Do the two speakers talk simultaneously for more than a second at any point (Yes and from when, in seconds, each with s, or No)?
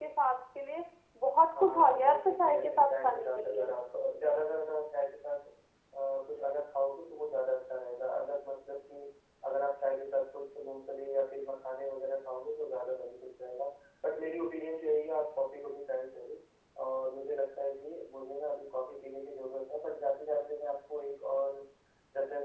Yes, from 1.5 s